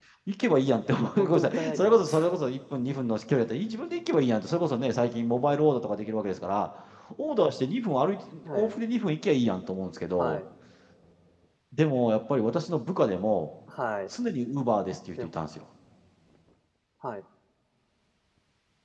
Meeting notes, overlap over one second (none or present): present